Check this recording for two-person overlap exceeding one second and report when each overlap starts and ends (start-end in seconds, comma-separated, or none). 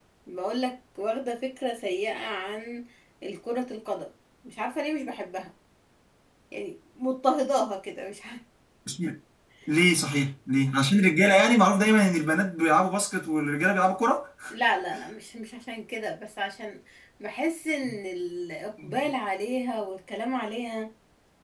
none